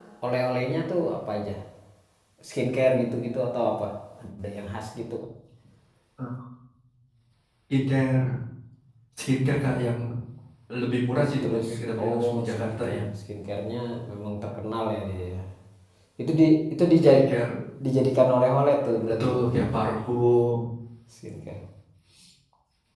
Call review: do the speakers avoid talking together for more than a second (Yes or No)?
No